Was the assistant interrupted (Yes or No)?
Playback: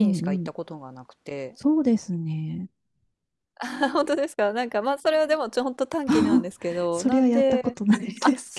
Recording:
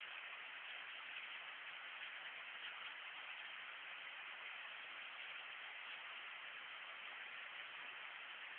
No